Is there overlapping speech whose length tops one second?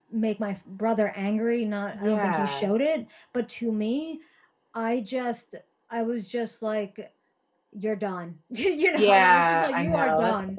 Yes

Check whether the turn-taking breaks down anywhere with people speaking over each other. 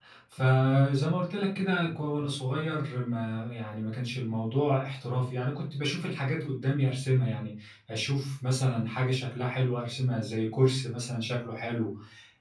No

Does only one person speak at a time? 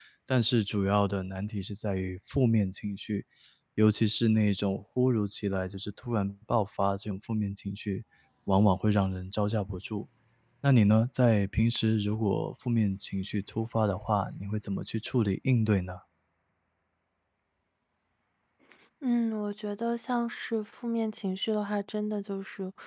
Yes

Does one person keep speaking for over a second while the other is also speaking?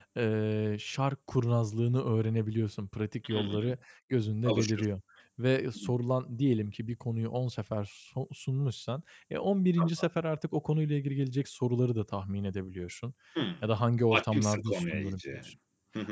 Yes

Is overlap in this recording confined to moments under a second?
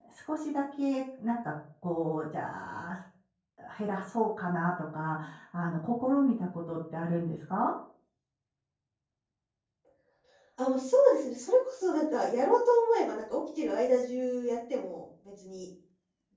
Yes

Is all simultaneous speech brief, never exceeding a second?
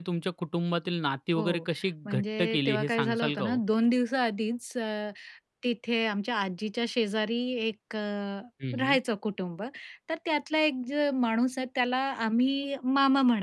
No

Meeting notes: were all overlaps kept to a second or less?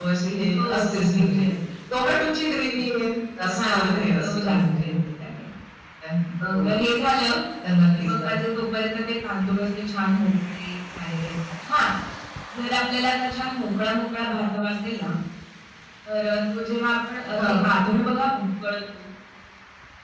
No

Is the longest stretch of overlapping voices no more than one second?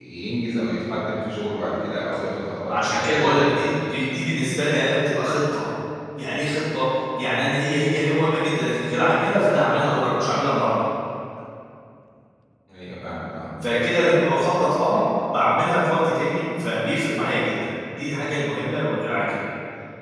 No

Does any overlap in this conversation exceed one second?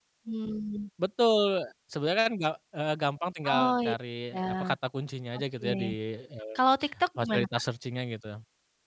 No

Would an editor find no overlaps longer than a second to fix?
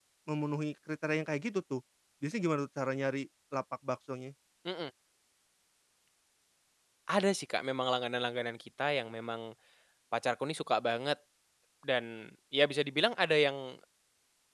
Yes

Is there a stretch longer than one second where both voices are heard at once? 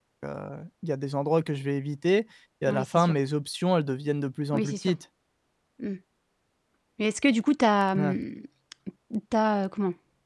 No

